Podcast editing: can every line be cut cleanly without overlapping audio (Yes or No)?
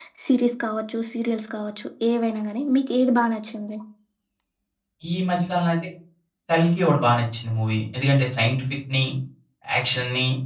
Yes